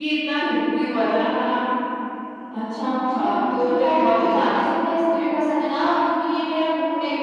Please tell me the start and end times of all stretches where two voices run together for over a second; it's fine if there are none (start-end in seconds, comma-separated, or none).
3.1-4.6